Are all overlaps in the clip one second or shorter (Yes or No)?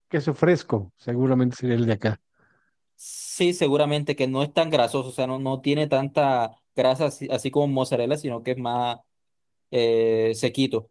Yes